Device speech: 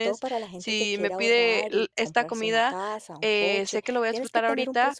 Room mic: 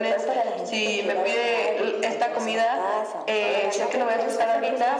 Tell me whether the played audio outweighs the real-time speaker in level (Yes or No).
Yes